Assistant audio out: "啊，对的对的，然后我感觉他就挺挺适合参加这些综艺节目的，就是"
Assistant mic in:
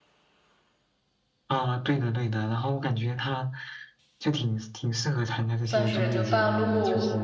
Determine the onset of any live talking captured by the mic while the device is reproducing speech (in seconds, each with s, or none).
5.6 s